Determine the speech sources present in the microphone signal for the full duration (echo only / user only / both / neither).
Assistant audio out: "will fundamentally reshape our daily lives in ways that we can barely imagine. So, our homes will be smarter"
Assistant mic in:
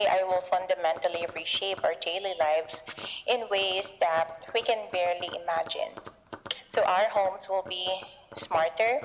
echo only